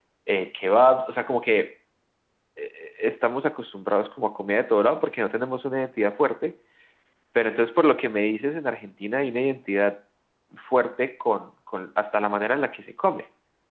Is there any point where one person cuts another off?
No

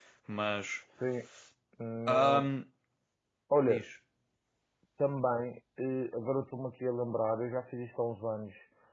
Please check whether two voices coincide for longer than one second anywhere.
No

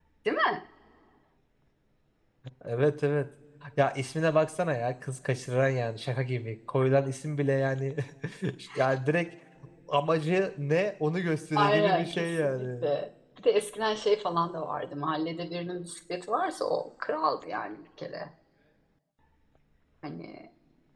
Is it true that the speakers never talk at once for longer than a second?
No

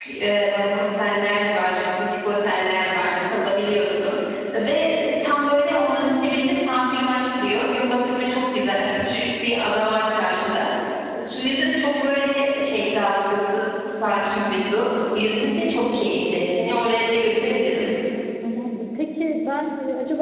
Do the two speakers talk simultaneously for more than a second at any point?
No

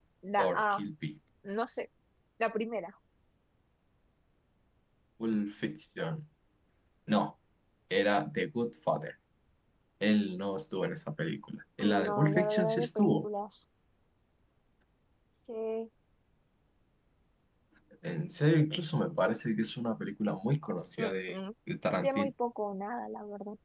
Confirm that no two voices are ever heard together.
No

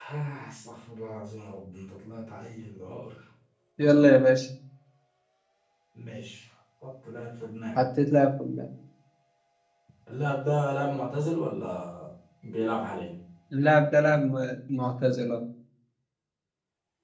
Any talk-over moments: No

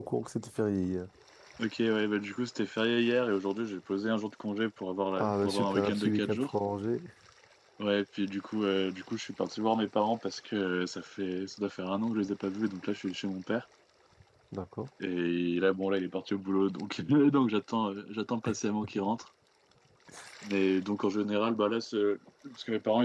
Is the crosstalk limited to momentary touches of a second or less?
No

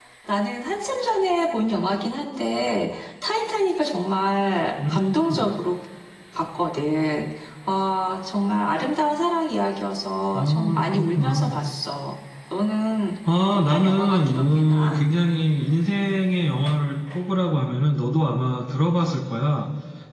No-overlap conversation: No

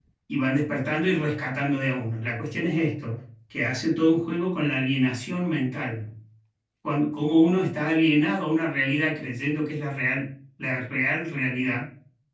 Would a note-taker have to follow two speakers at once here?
No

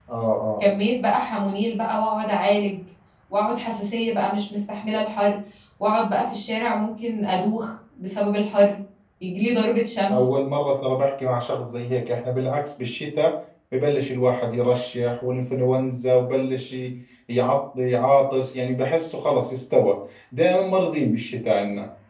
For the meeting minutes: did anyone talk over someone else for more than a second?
No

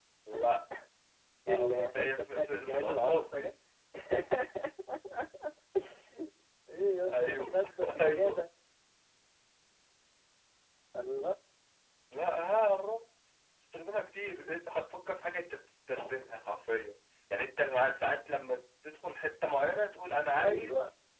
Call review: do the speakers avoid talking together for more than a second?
No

